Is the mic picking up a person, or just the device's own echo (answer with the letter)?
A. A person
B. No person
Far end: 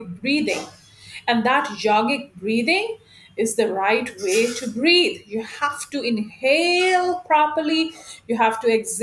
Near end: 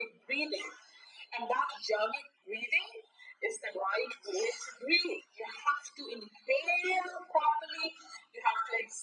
B